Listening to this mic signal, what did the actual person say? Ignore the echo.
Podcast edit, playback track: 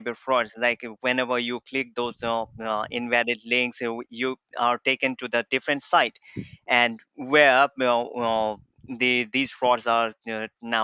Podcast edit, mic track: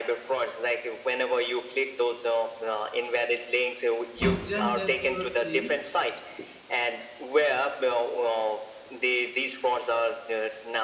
incident that you have seen

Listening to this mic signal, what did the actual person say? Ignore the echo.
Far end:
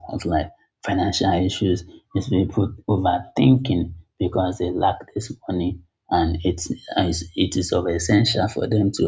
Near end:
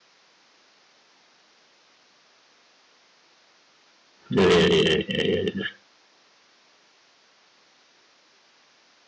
Yeah, yeah, yeah, yeah, yeah. yeah.

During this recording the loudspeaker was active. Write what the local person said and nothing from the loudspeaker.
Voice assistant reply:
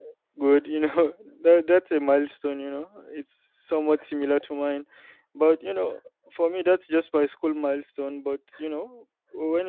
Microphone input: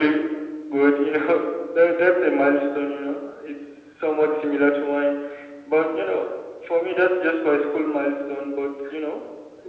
none

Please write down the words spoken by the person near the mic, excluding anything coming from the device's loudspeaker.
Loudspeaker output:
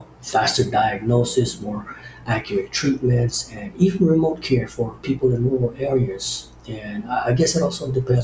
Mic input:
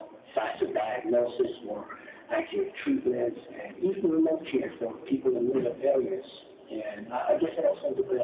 none

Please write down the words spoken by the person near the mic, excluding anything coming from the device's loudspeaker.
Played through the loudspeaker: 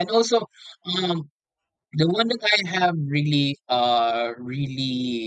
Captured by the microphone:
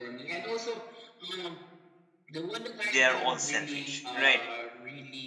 they're all selfish right

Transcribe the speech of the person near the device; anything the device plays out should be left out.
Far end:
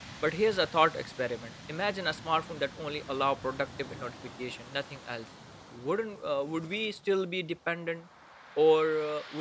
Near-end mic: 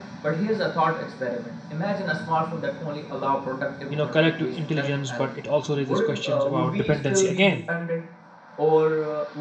You know, collective intelligence, but it also raises questions about dependency again.

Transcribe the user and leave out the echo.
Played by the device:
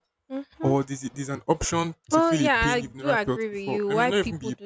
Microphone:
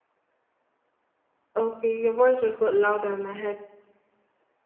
Okay, your voice just got louder in my head.

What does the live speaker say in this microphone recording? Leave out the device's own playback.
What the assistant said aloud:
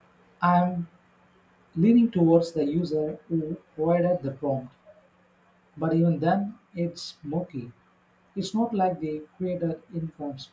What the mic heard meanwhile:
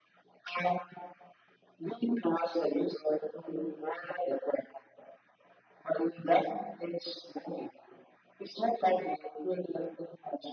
none

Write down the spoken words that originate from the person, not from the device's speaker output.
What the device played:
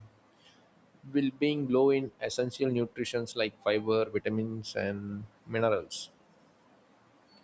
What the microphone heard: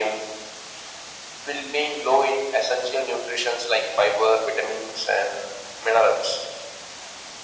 none

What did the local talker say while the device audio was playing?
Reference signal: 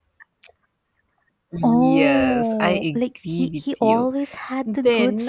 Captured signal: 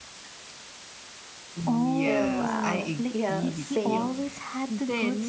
Oh, wow. Yeah, same.

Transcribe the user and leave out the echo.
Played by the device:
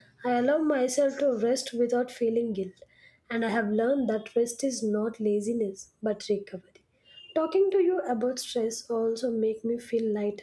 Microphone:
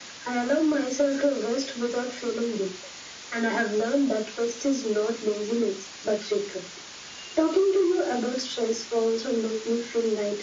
none

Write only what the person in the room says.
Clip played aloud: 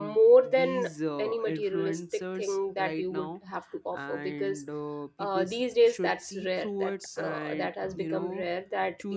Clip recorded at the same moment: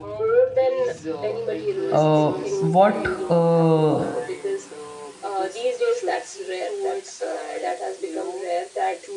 uh, what uh,

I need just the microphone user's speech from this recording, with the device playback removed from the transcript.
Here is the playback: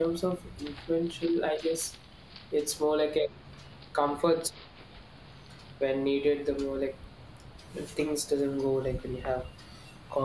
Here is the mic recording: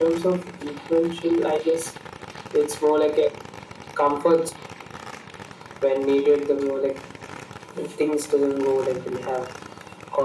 none

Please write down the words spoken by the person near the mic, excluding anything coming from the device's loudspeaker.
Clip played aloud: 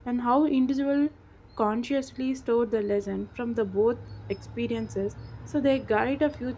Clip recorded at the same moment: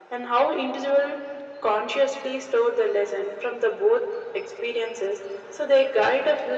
none

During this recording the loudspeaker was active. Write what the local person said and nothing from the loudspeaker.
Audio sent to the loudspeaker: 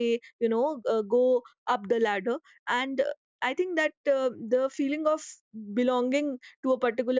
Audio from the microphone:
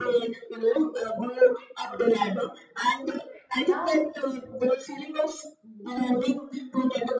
yeah

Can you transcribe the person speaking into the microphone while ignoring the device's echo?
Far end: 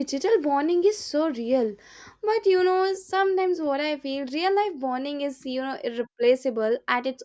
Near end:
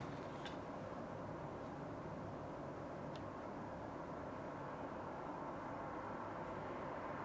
none

